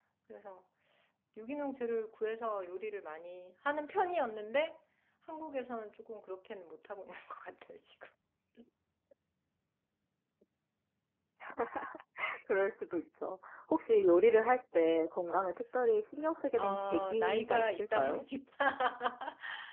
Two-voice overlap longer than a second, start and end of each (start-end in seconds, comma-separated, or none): 16.6-18.2